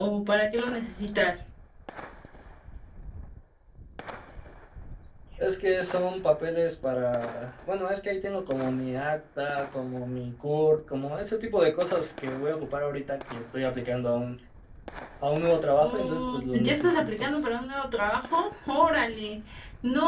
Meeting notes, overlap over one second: present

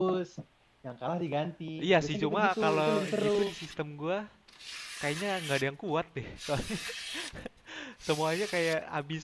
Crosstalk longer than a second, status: present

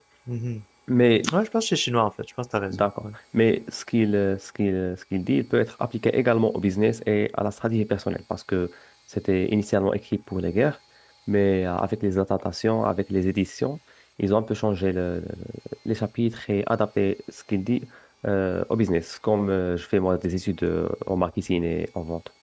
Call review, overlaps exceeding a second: none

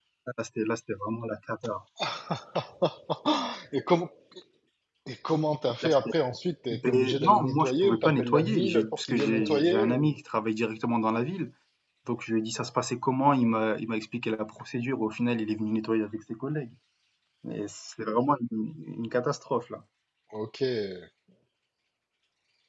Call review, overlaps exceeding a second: present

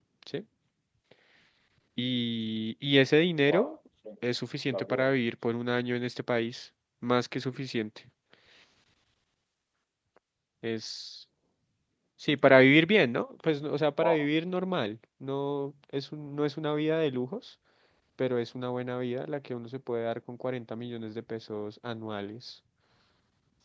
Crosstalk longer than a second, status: none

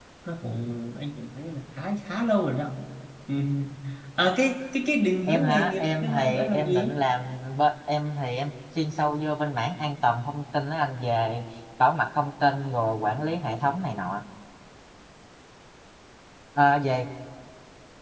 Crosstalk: present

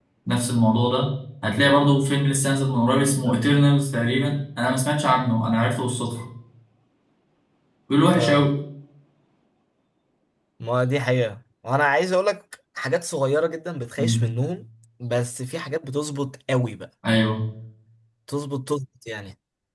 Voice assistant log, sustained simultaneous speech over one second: none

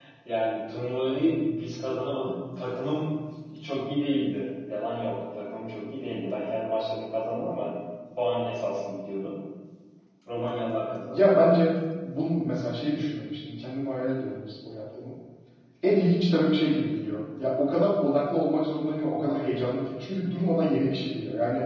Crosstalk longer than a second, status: none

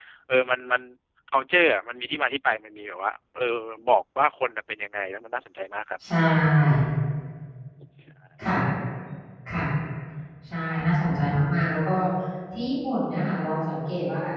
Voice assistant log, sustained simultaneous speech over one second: none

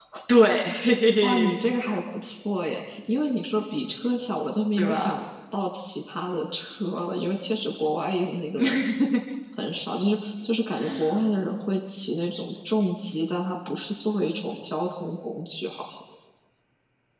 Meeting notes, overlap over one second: none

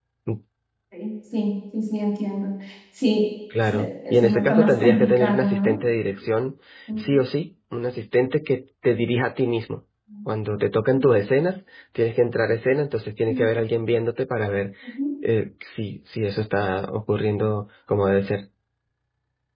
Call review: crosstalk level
present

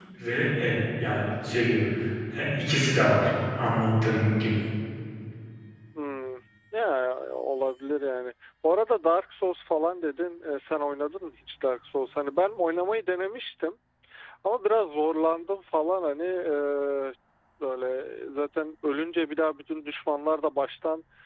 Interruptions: none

